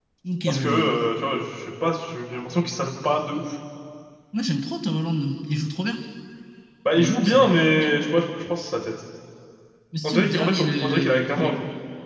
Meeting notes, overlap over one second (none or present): present